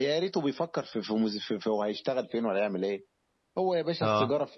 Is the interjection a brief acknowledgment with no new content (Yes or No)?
Yes